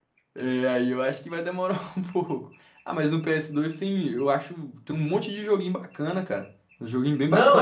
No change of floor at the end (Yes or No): No